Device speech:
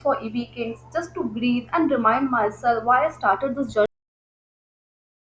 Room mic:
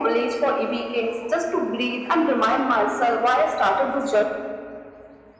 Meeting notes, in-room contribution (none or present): none